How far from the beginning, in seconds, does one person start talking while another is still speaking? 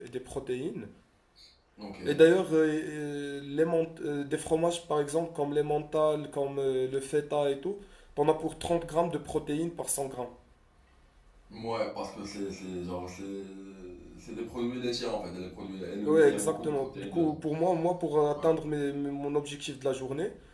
16.0 s

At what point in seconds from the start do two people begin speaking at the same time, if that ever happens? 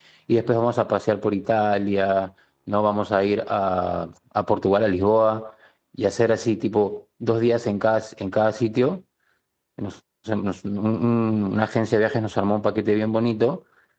none

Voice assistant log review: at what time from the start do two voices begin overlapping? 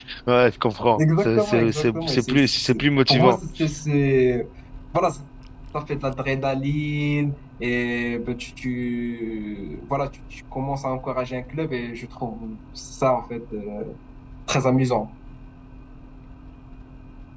1.0 s

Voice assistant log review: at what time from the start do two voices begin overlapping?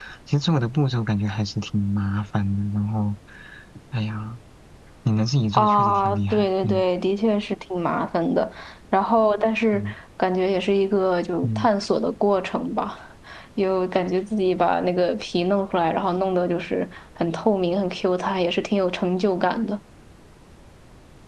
5.5 s

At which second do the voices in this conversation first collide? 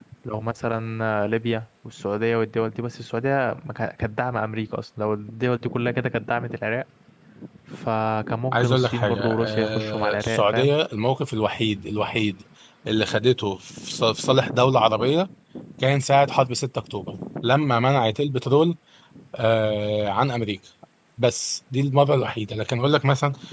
8.5 s

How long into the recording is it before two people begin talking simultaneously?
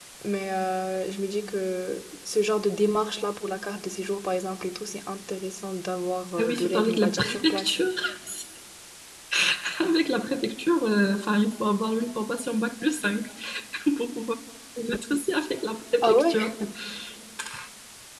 6.4 s

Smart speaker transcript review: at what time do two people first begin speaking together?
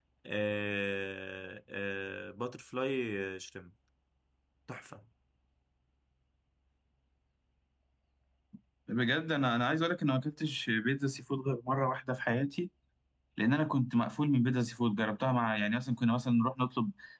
none

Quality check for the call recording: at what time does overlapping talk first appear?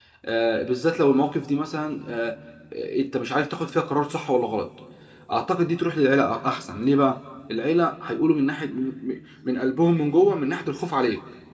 none

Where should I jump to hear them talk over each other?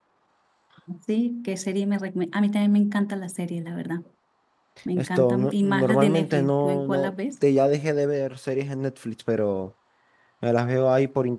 5.0 s

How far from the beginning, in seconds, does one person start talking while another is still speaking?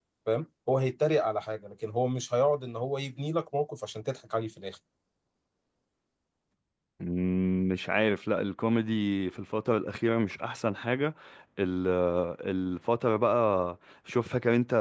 none

